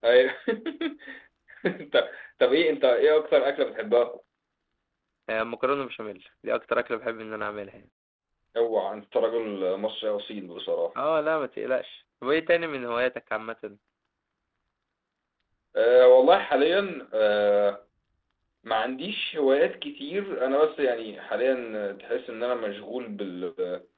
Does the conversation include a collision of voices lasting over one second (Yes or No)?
No